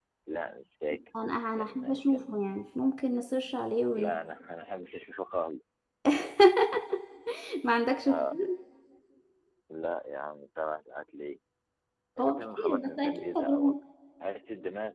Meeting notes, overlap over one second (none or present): present